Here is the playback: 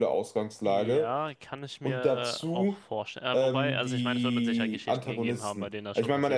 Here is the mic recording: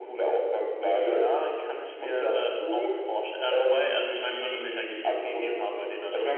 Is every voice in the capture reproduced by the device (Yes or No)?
No